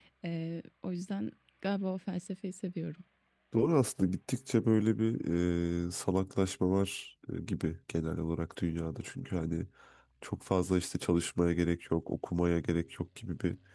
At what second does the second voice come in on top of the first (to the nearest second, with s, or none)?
none